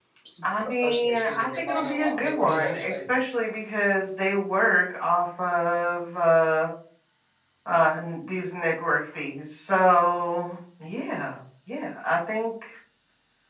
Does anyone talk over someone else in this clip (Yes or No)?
Yes